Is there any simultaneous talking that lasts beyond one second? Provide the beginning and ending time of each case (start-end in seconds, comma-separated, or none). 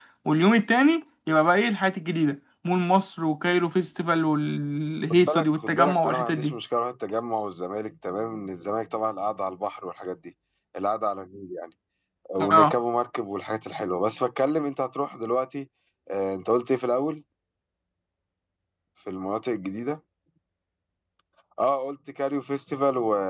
5.1-6.6